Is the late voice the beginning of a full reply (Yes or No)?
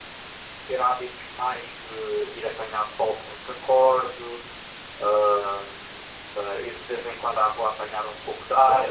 Yes